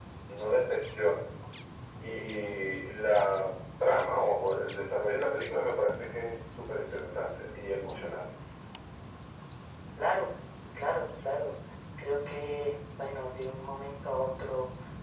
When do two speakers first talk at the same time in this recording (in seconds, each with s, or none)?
none